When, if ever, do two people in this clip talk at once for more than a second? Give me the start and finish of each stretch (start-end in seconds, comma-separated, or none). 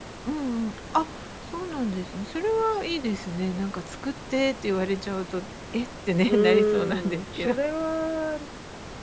6.2-7.5